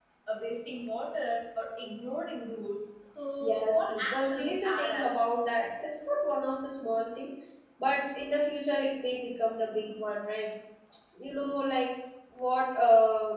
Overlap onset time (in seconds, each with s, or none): 3.4 s